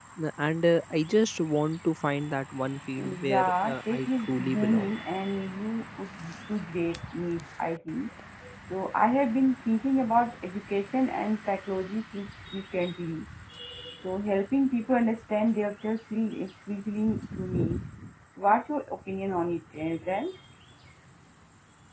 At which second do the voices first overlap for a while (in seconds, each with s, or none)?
3.3 s